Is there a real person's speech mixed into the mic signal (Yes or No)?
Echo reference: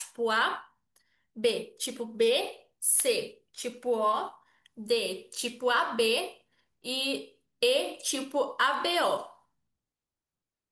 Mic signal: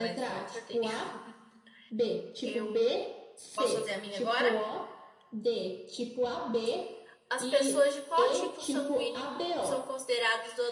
Yes